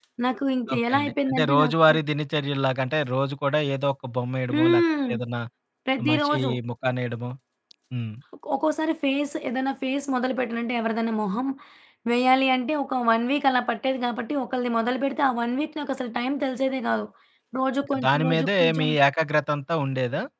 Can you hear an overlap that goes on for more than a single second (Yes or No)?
Yes